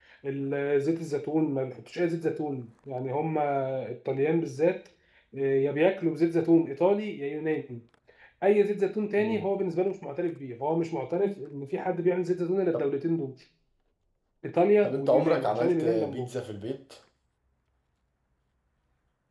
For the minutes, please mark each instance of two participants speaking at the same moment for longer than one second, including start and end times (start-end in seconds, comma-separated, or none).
14.8-16.3